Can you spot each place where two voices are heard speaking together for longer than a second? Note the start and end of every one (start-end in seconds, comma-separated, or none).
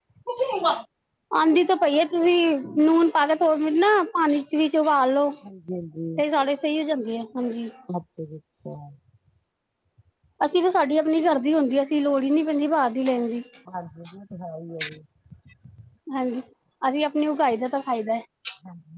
none